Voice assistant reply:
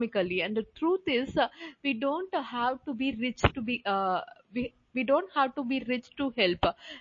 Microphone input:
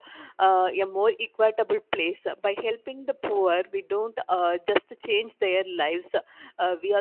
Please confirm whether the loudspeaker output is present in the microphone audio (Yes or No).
No